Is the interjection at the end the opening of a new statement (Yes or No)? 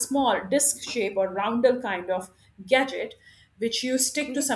No